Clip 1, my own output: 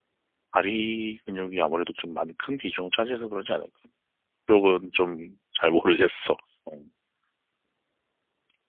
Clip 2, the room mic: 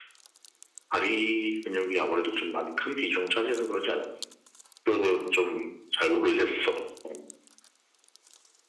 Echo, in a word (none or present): present